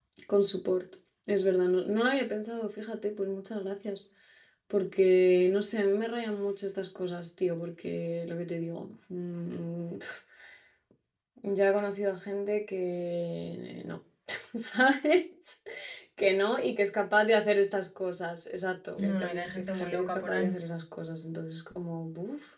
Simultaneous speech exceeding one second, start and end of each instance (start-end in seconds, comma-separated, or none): 19.0-20.5